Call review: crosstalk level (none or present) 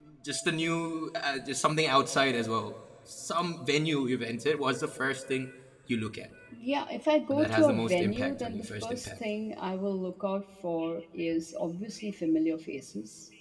present